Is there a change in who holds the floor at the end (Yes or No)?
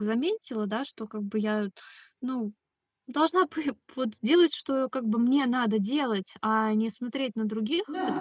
No